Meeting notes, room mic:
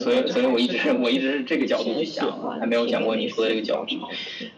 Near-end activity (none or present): present